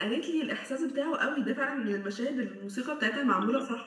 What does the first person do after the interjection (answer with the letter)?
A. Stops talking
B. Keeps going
A